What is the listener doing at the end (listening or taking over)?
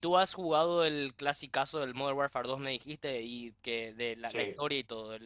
listening